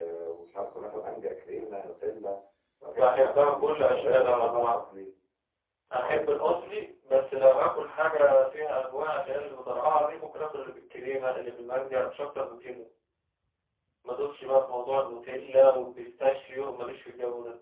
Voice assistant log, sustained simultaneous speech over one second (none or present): present